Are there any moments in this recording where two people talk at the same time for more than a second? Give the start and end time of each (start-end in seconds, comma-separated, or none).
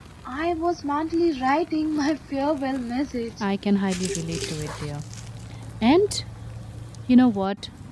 none